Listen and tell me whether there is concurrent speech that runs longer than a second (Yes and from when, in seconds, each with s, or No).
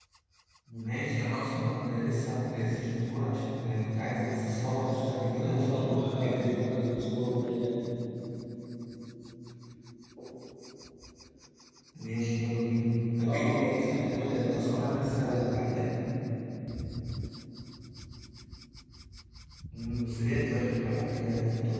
Yes, from 4.4 s